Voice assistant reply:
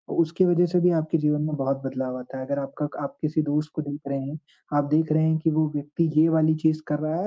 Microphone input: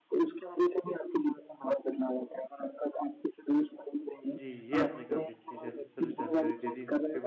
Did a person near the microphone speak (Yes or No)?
Yes